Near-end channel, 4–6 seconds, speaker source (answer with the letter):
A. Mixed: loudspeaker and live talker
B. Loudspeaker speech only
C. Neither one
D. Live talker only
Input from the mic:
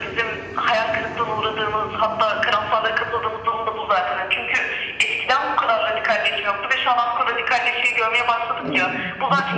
B